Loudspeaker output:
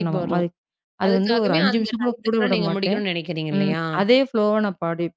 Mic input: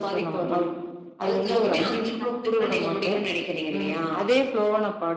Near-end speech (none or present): none